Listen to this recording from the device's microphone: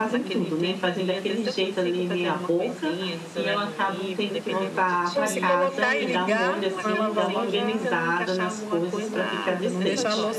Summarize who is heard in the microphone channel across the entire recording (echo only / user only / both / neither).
both